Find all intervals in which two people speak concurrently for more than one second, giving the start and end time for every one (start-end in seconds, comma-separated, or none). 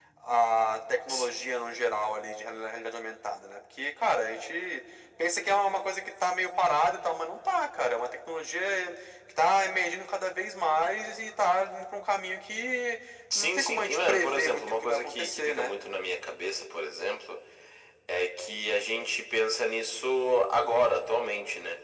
13.3-15.7